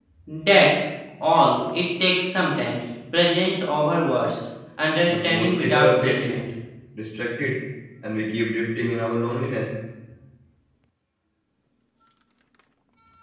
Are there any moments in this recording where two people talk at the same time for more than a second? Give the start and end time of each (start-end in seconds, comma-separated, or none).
5.1-6.4